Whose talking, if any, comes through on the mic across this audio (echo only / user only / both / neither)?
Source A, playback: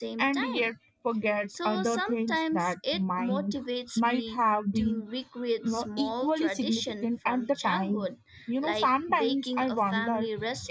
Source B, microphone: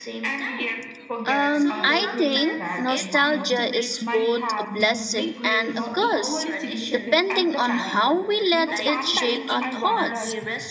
both